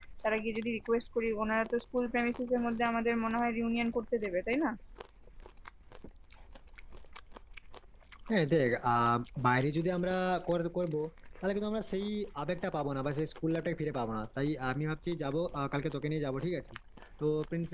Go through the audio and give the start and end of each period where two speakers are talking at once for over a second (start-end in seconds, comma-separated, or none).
none